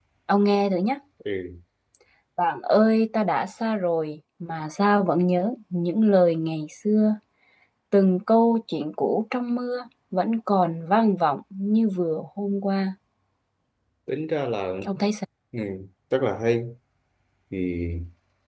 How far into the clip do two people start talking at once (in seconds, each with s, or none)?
none